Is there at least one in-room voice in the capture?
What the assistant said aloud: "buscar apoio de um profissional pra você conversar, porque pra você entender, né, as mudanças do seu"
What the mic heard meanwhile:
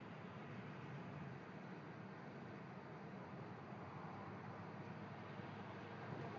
No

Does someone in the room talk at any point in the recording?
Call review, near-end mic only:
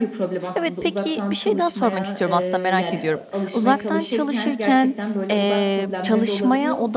Yes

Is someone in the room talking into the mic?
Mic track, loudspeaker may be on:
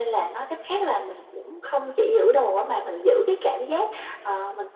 No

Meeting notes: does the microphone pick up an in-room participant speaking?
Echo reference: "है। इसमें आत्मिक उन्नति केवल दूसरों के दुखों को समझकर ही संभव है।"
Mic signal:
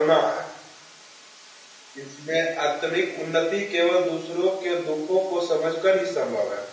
No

